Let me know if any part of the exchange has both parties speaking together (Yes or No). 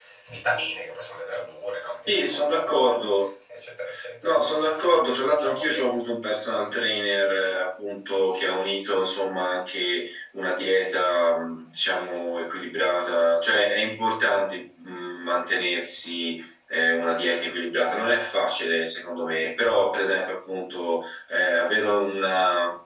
Yes